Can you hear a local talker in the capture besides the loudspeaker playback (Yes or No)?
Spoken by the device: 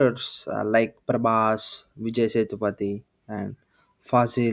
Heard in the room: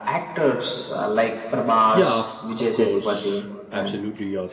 Yes